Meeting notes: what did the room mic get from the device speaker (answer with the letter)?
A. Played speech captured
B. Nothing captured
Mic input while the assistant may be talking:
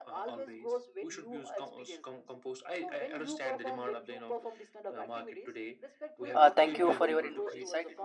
A